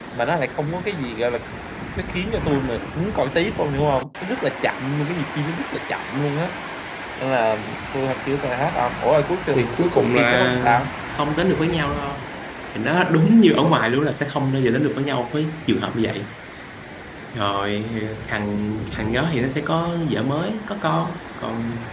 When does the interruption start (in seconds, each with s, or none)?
9.5 s